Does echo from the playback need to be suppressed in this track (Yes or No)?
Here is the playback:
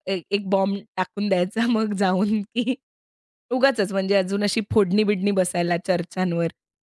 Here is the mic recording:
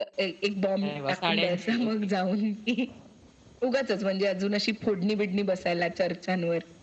Yes